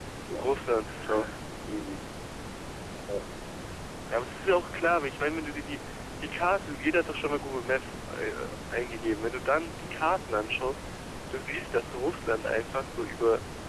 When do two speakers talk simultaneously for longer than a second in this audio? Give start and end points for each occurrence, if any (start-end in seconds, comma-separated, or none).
none